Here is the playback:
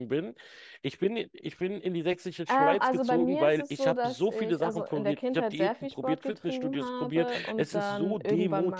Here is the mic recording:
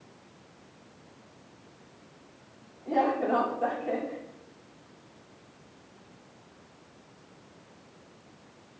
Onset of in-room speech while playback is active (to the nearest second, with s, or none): 3 s